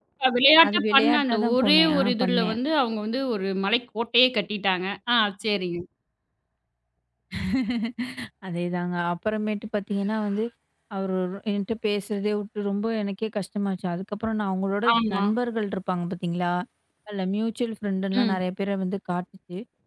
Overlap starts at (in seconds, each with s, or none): 0.7 s